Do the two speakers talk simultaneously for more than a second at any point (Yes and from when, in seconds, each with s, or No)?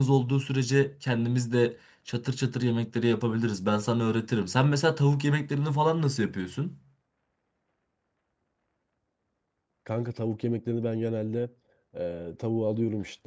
No